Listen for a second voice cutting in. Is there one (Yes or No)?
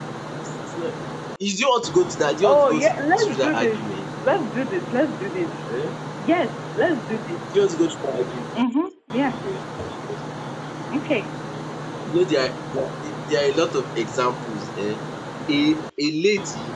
Yes